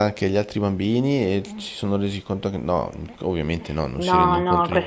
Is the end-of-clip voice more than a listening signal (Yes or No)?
Yes